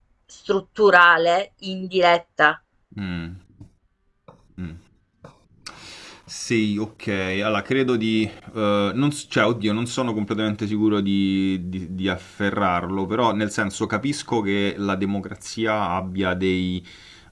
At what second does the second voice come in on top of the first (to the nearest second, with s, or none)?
none